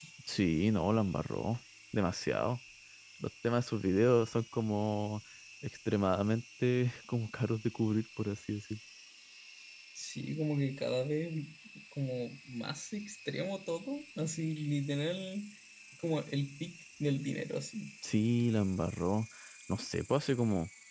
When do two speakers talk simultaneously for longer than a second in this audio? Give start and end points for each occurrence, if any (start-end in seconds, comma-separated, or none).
none